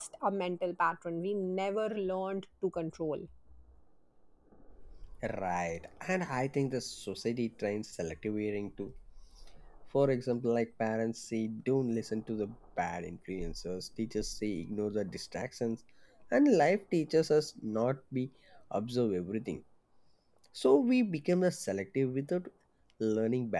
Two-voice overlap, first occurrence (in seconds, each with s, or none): none